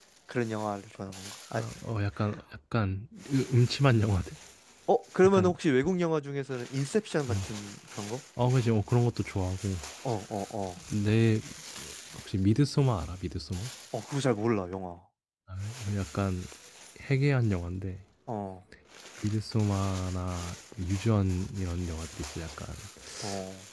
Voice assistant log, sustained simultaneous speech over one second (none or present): none